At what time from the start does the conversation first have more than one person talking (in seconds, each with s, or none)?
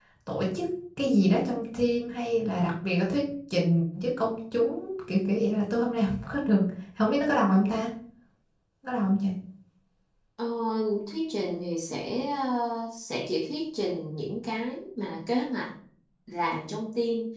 none